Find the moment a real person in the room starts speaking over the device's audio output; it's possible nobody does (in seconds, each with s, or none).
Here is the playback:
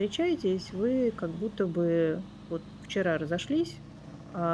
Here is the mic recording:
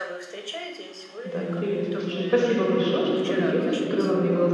1.2 s